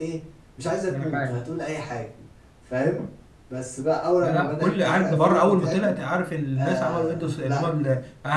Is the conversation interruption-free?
No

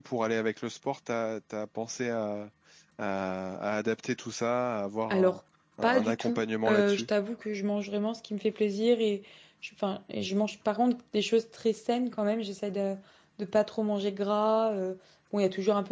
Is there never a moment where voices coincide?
No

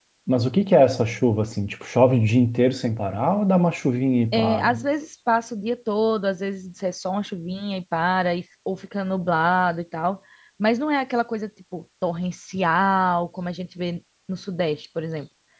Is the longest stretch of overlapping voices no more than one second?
Yes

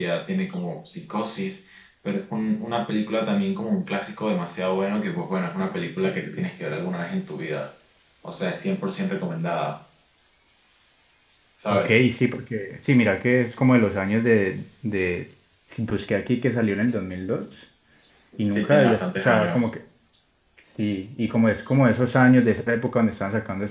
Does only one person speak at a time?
No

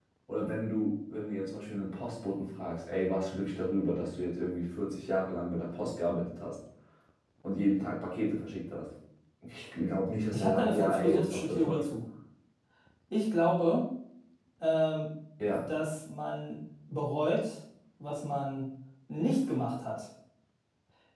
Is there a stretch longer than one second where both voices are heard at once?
Yes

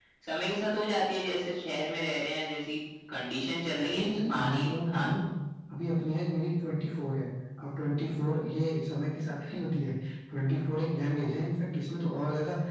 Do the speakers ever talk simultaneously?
Yes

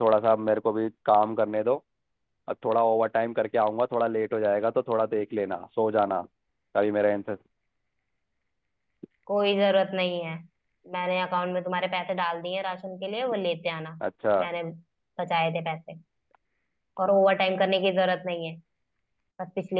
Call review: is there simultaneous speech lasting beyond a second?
No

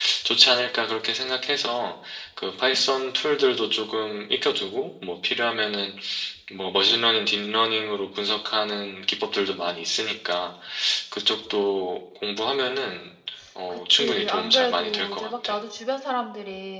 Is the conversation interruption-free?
No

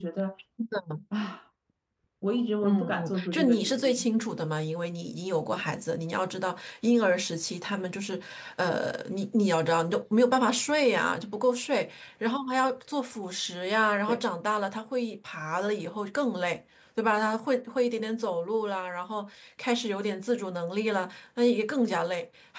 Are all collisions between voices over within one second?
No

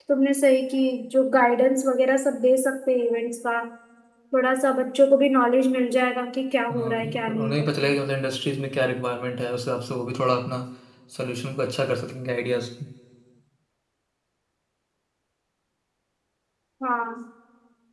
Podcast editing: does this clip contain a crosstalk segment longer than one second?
Yes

